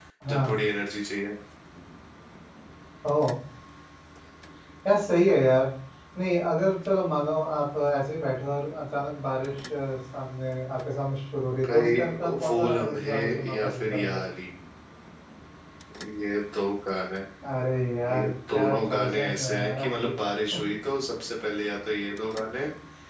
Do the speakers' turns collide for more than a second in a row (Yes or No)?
Yes